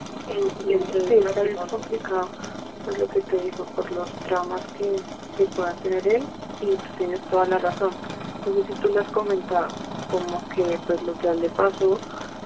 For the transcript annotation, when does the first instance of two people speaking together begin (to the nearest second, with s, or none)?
1 s